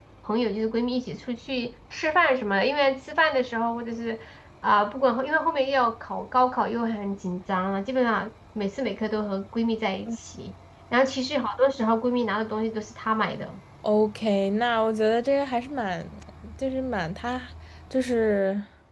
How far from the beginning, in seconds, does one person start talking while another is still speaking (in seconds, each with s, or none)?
none